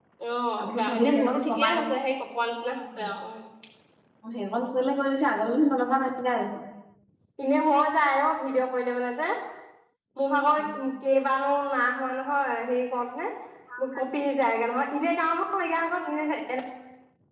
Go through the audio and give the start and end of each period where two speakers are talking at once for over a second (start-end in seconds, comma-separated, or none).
0.6-1.8